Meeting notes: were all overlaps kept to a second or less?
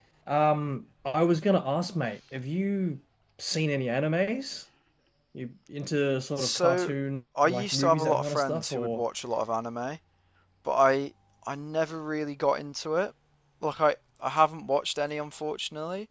No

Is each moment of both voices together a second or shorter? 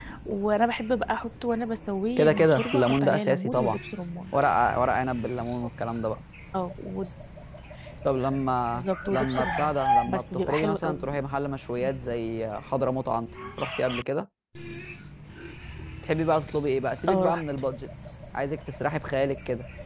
No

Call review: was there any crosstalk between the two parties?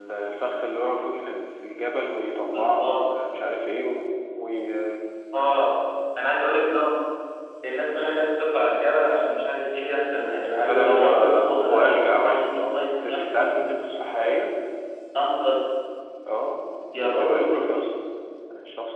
Yes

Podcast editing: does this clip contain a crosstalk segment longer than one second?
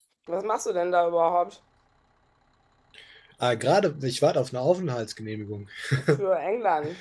No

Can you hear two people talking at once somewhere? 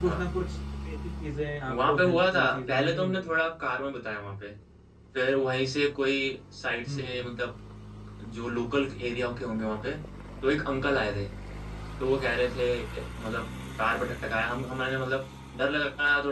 Yes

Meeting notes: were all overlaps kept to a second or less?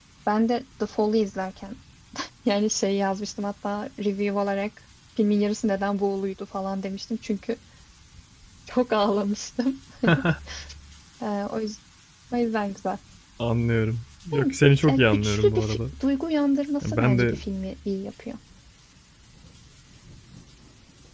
No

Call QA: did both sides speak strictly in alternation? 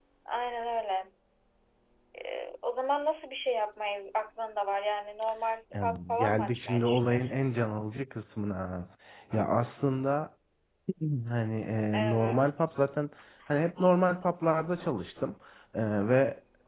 No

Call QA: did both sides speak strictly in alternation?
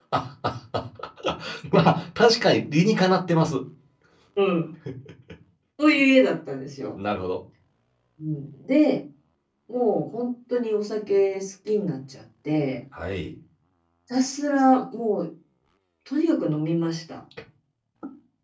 Yes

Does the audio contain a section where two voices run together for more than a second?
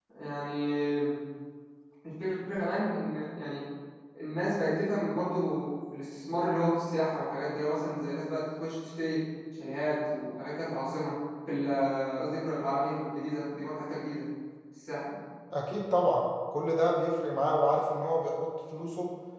No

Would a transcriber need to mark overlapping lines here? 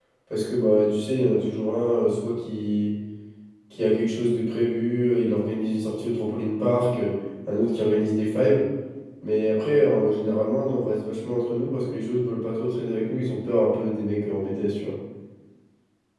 No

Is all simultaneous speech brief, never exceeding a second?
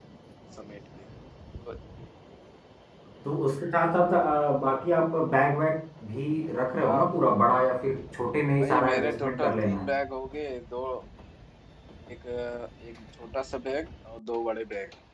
No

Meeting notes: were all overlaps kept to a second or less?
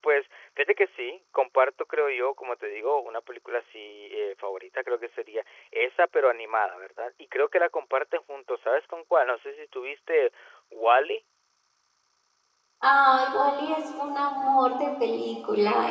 Yes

